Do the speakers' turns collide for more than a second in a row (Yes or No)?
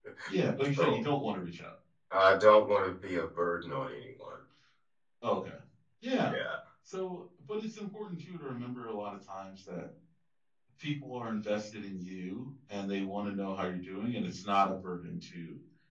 No